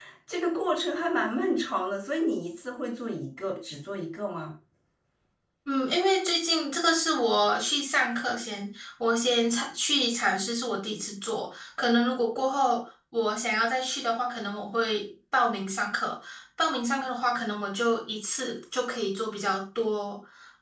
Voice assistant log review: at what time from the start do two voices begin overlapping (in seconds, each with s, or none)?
none